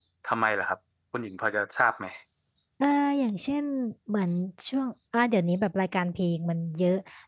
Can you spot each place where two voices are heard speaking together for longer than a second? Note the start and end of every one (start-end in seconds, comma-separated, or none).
none